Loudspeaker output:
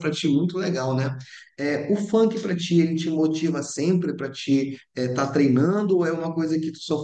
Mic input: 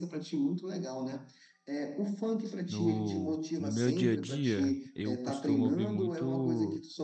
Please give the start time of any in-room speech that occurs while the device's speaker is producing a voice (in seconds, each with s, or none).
2.7 s